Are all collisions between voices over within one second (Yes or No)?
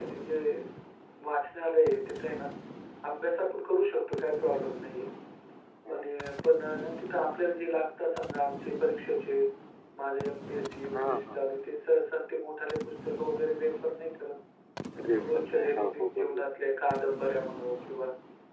No